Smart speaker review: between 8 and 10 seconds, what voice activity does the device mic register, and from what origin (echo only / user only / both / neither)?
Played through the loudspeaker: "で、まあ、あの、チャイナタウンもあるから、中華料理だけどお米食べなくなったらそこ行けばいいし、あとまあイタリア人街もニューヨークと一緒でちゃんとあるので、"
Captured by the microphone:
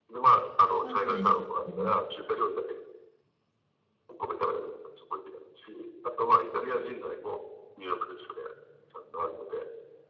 echo only